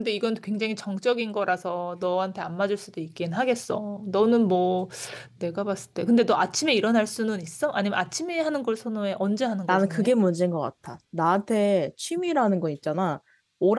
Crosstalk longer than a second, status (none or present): none